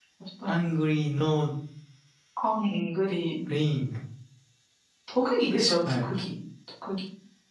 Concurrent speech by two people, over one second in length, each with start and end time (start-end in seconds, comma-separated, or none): none